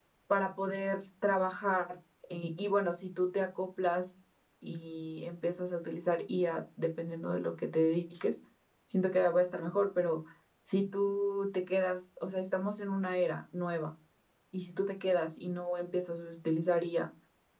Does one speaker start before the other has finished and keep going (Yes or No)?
No